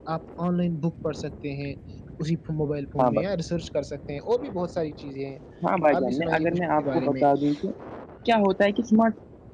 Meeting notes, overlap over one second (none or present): present